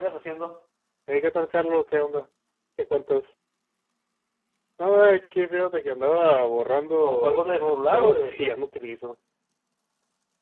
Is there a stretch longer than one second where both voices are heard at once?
Yes, from 7.0 s

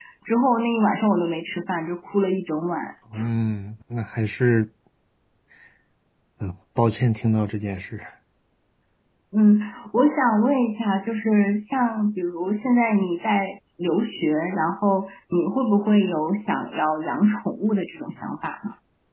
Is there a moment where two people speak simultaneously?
No

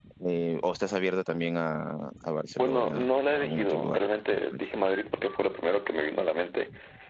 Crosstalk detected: Yes, from 2.6 s

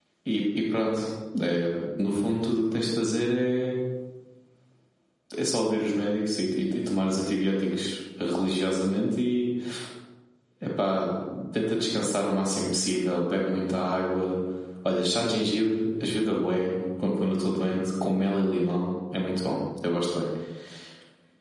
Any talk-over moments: No

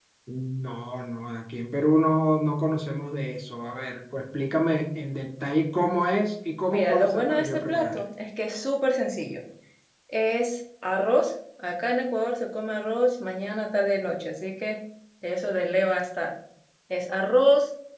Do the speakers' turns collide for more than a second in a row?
Yes, from 6.7 s

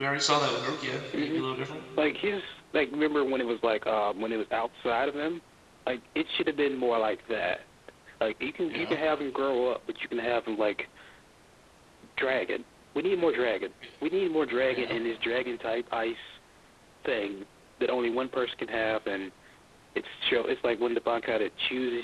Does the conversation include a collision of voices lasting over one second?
No

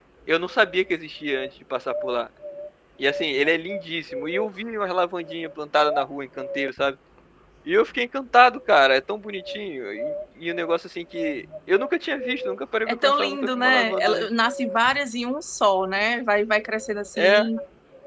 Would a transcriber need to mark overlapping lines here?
Yes, from 12.9 s

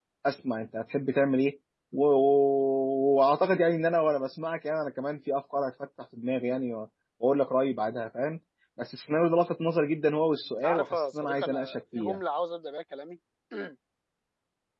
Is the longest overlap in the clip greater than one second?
Yes, from 10.6 s

